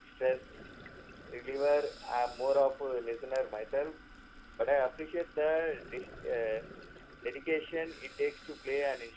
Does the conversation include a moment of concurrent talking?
No

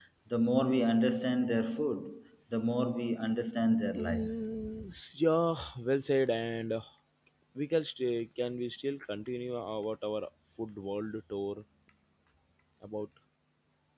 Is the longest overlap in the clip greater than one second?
No

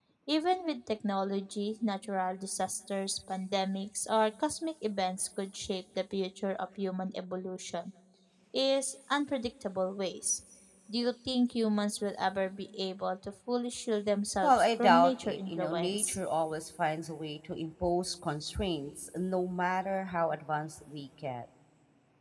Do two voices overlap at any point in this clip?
Yes, from 14.4 s

